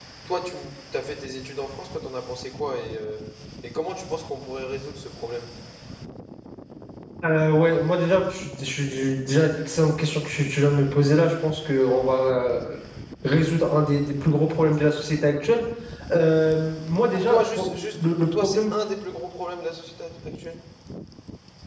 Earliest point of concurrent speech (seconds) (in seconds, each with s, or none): 17.1 s